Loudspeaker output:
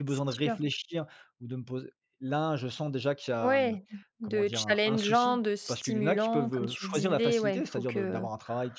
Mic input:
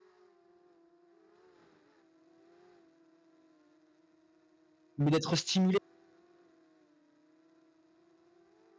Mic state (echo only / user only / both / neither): user only